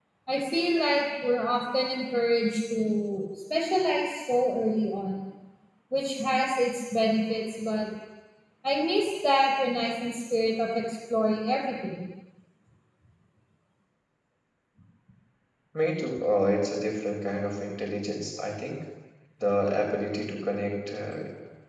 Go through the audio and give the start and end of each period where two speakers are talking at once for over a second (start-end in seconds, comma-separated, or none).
none